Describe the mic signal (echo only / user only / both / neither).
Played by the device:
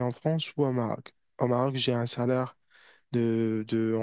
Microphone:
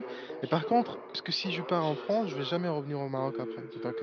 both